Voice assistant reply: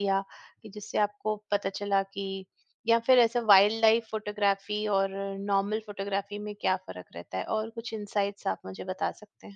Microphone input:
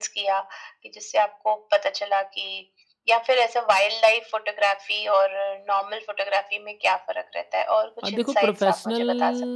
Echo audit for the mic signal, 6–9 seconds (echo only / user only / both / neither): both